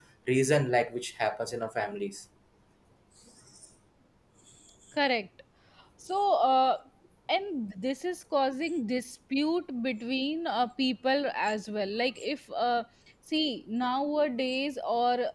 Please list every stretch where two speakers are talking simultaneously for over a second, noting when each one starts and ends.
none

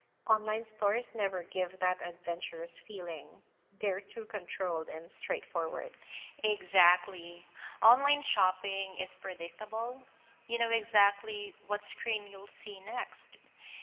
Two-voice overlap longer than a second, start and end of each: none

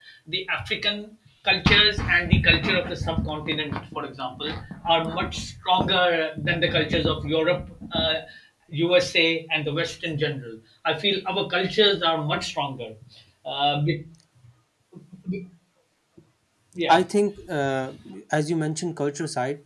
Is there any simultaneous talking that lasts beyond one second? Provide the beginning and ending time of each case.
none

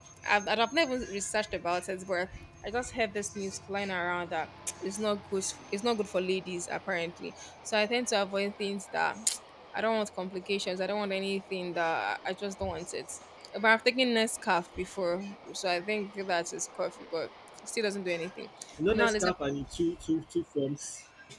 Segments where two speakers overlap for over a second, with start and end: none

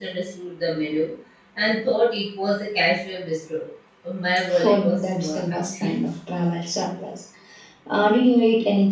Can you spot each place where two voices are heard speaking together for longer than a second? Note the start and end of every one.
4.6-5.9

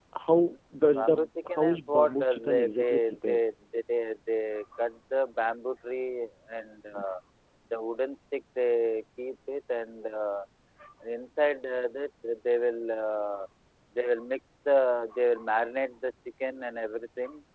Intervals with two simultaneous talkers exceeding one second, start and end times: 1.5-3.4

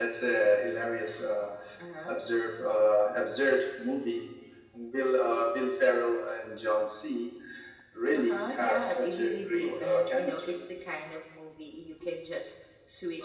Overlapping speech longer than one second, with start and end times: 8.2-10.6

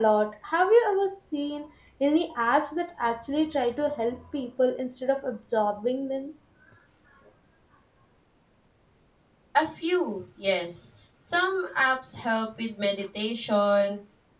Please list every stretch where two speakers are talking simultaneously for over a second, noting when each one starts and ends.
none

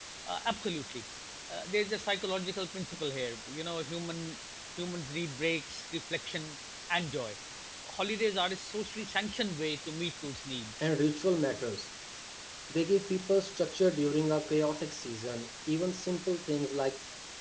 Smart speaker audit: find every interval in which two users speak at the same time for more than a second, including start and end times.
none

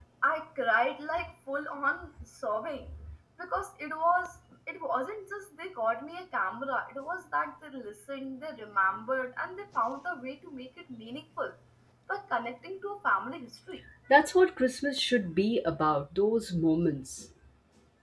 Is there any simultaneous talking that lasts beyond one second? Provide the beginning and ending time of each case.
none

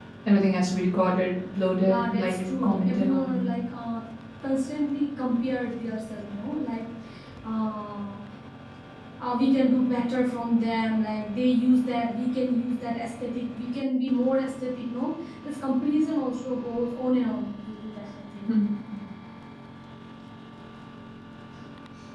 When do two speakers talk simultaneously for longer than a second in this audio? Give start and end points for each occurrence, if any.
1.8-3.4

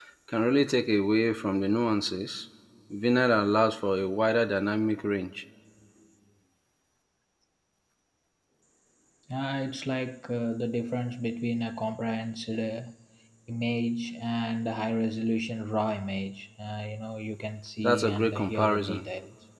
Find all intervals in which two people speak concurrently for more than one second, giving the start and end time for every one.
17.8-19.1

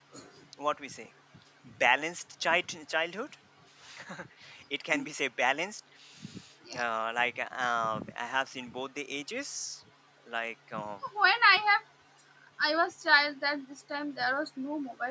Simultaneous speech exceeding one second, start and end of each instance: none

